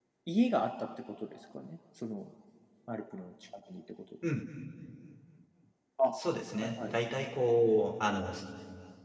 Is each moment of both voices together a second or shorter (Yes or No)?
Yes